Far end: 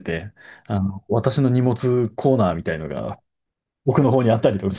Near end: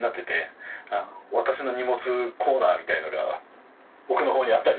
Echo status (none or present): present